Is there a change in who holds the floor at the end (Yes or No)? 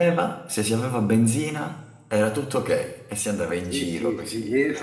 Yes